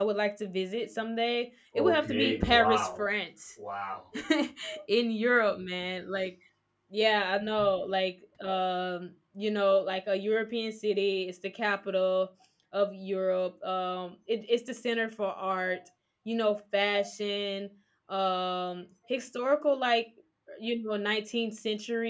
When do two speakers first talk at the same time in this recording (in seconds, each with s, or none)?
1.8 s